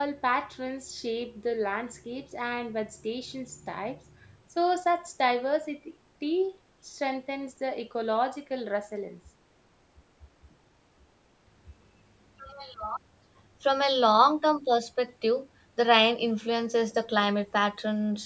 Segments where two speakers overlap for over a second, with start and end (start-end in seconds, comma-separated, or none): none